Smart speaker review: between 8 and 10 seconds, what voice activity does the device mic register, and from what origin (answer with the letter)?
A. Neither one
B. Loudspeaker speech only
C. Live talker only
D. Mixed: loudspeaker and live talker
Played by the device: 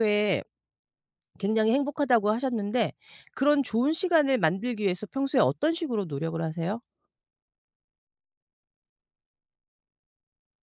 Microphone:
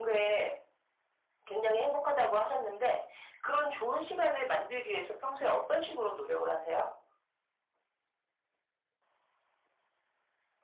A